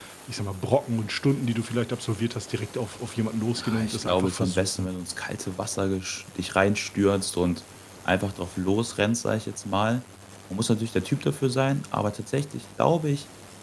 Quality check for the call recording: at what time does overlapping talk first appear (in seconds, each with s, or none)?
3.6 s